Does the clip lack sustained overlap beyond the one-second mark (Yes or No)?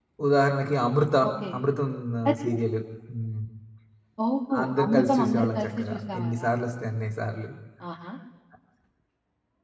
No